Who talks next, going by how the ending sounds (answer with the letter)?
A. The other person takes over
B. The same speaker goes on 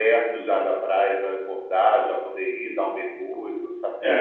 A